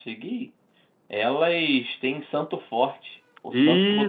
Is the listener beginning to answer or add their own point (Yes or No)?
Yes